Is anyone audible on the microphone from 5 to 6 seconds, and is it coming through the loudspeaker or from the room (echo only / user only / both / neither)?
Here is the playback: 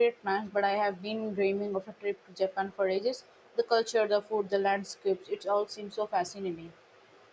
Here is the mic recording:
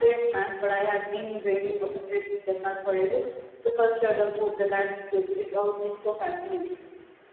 echo only